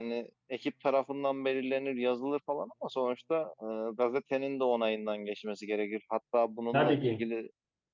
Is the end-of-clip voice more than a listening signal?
No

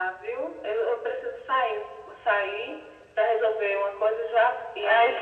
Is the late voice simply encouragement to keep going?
No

